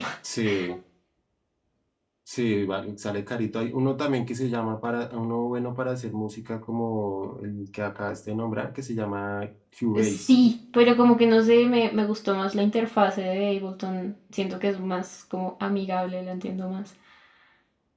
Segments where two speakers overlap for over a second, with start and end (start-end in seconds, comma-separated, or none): none